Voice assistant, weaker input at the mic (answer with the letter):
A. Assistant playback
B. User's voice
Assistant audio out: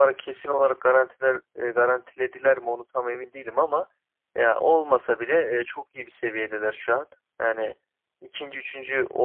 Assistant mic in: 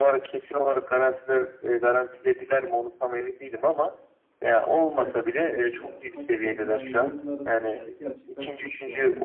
B